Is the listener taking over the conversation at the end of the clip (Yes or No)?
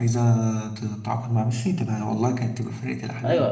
Yes